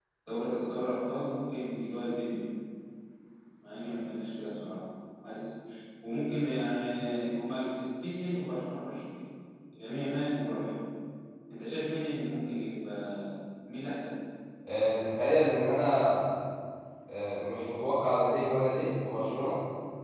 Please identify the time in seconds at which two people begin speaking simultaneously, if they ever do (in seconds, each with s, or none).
none